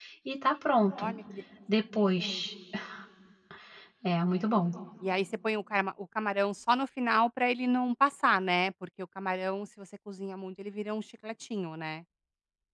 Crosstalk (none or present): none